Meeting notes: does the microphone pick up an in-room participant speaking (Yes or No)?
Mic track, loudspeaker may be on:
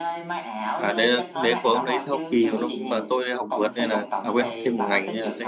Yes